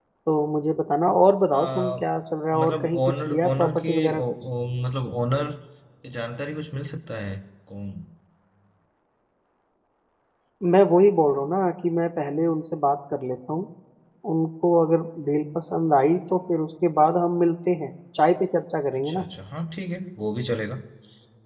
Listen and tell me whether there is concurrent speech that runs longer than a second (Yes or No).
Yes